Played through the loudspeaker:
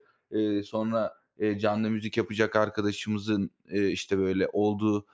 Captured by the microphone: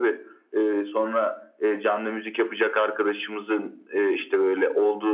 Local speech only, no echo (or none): none